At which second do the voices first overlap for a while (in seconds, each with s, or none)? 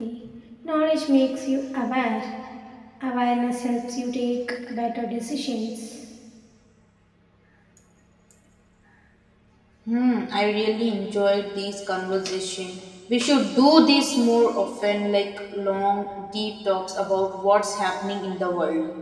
none